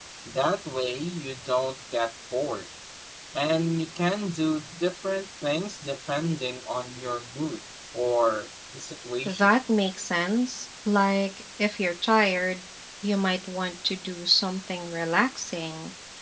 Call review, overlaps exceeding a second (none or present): none